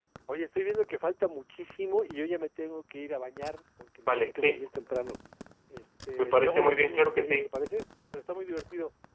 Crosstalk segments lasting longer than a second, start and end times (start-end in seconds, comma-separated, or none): 6.2-7.5